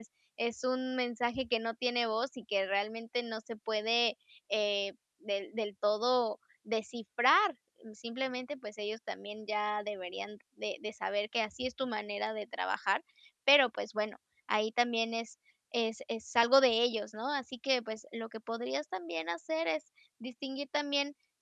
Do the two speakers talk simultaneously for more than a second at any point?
No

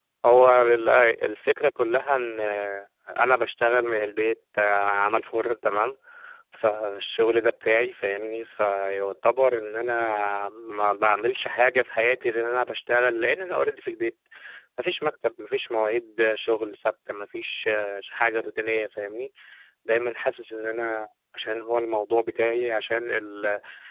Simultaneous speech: No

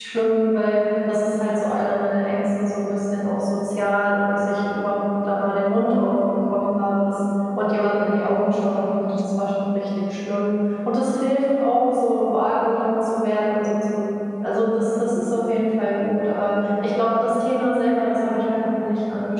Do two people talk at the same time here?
No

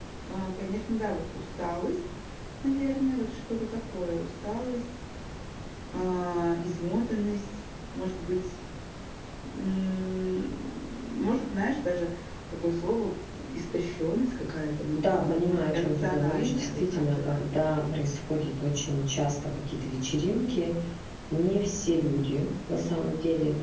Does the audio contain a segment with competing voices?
Yes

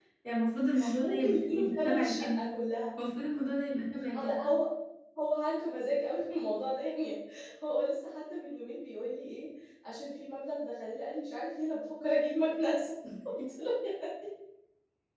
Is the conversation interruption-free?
No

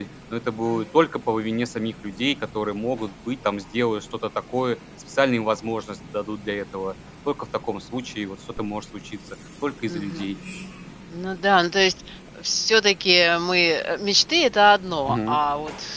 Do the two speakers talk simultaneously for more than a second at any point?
No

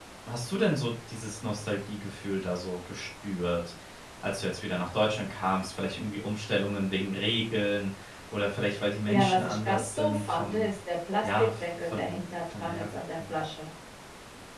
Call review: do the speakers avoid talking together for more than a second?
No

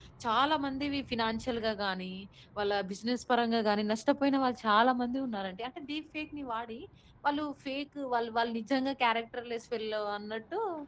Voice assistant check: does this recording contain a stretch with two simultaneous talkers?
No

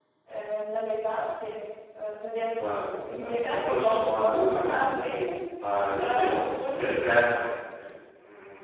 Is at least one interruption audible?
Yes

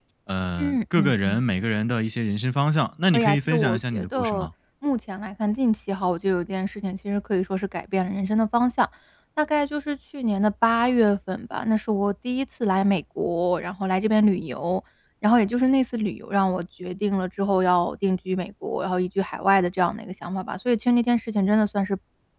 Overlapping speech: Yes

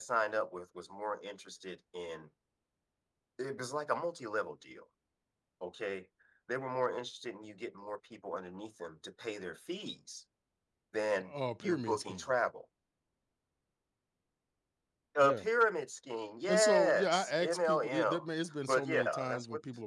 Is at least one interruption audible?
Yes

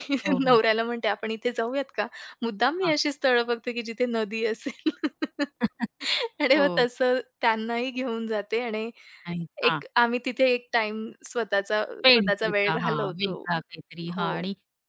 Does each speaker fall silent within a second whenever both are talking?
No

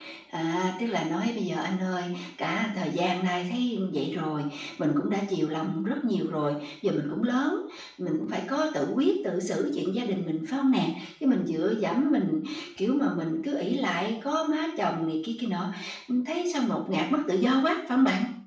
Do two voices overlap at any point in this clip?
No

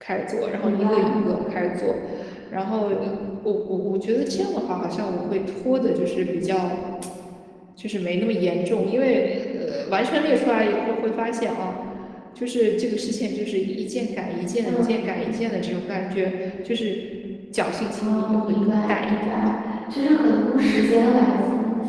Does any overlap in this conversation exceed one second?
Yes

